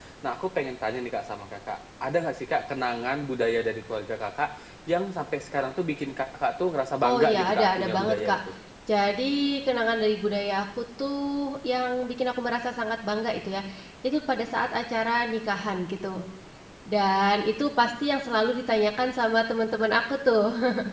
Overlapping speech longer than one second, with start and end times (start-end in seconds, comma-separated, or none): 7.0-8.4